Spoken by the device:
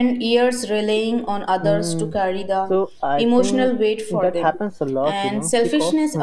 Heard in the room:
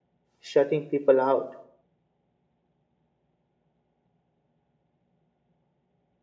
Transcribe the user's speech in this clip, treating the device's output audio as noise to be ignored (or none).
shutting people out,